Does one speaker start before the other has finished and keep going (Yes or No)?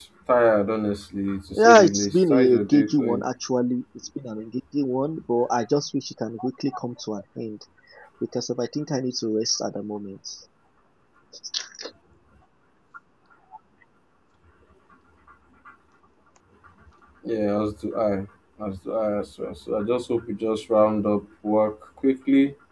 Yes